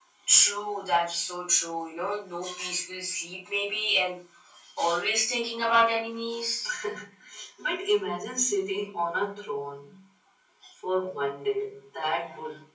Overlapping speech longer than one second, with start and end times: none

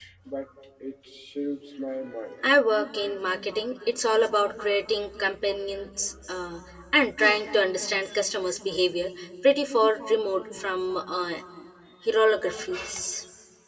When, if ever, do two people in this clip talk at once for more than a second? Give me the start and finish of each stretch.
none

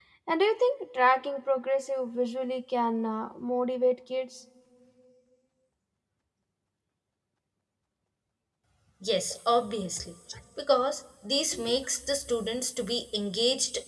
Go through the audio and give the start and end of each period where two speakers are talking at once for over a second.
none

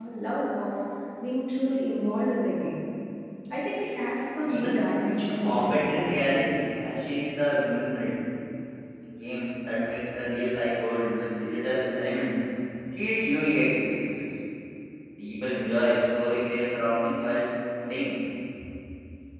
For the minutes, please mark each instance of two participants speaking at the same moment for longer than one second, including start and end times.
4.5-6.3

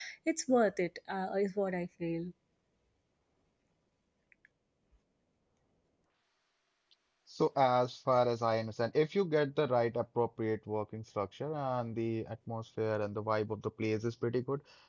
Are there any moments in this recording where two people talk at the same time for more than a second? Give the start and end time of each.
none

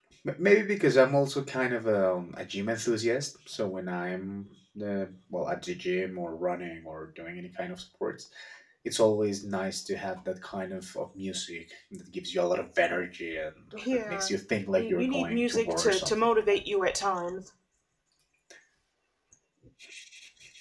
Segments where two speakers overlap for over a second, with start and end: 14.8-16.3

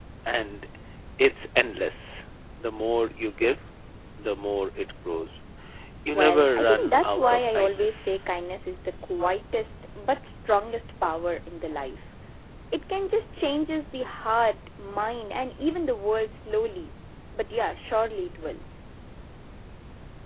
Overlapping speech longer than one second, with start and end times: 6.1-8.2

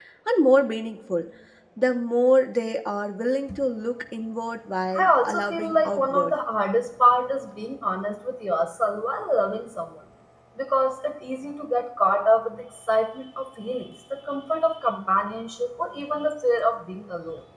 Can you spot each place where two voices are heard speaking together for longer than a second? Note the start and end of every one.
4.9-6.3

